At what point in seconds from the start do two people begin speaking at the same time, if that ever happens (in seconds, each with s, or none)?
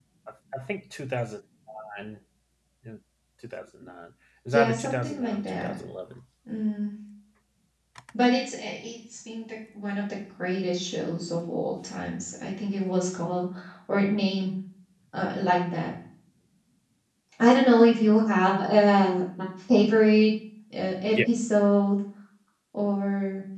4.5 s